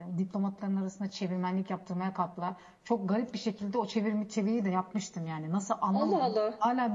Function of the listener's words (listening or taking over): listening